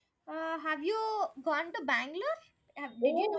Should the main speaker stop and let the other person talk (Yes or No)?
Yes